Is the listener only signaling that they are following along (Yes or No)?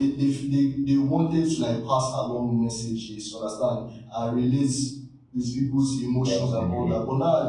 Yes